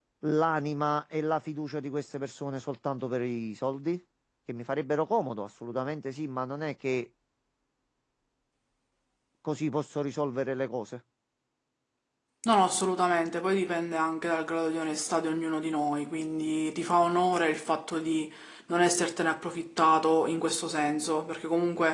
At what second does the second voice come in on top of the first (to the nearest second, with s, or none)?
none